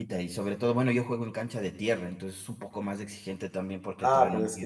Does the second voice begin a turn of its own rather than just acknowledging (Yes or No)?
Yes